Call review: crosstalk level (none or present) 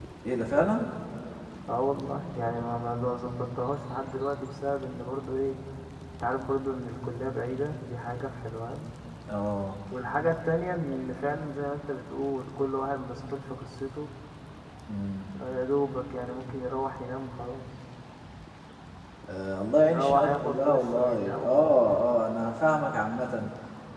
present